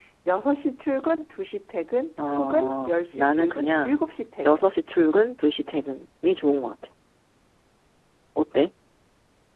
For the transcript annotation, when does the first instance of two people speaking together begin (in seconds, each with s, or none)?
2.2 s